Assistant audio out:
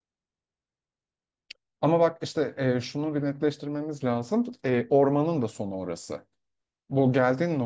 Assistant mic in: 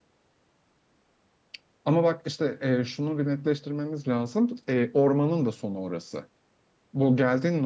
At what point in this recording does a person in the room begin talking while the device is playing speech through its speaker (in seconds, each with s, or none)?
none